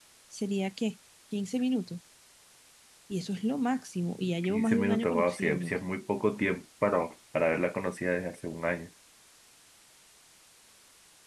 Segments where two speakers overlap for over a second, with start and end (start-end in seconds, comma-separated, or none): 4.4-5.7